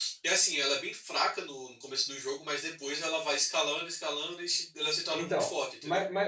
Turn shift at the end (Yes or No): Yes